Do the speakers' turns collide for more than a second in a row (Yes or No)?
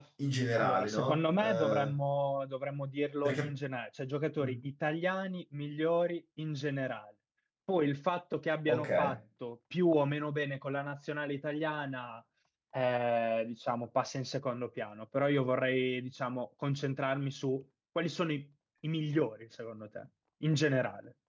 Yes